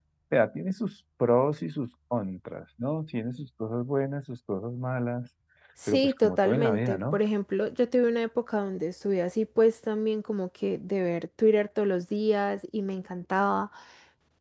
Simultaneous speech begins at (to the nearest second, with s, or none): 6 s